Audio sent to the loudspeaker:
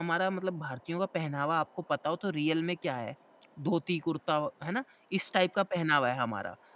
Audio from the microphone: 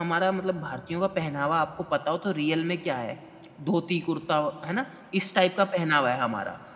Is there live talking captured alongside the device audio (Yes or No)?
No